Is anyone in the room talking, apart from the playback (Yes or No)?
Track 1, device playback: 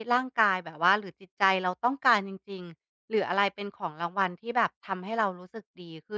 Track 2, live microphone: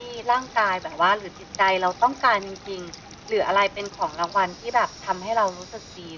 No